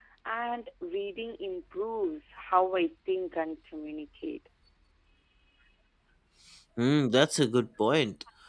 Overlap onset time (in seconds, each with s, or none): none